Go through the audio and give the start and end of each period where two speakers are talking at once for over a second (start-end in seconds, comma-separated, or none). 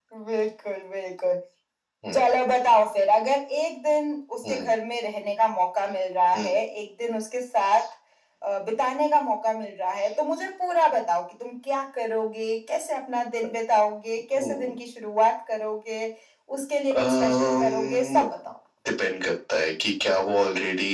17.0-18.2